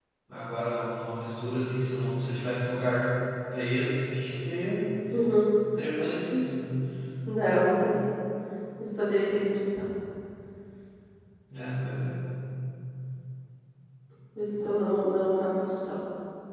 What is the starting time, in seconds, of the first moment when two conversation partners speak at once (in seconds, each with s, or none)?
none